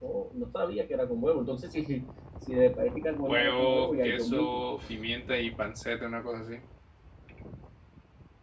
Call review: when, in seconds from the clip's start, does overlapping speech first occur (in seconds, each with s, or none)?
3.2 s